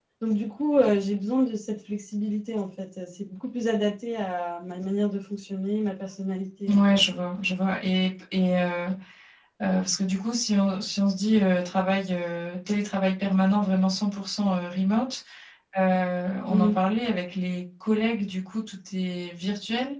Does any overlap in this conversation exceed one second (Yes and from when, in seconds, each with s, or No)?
No